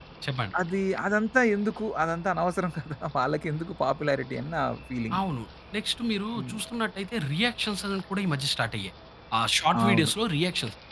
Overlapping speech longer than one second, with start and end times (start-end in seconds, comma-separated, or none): none